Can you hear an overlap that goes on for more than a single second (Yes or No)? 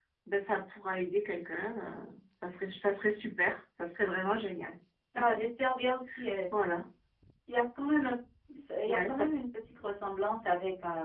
No